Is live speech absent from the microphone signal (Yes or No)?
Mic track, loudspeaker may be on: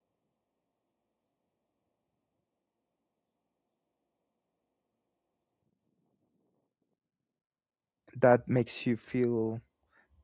No